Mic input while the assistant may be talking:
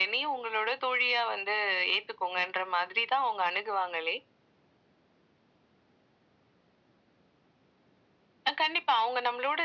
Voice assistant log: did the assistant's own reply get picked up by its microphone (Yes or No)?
Yes